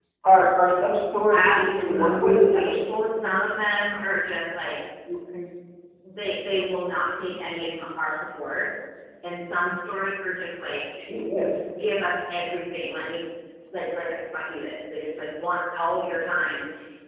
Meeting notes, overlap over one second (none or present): present